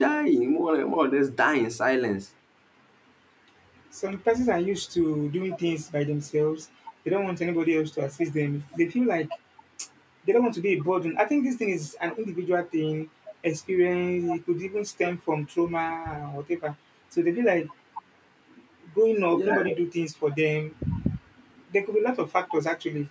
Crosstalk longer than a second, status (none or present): none